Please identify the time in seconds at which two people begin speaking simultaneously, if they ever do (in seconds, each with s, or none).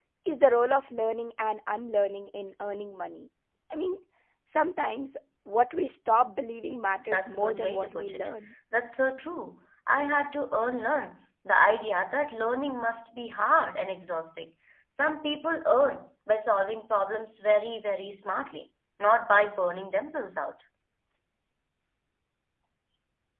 6.9 s